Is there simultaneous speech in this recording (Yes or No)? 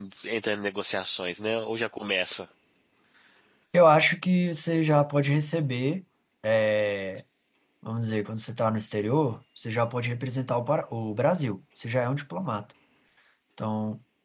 No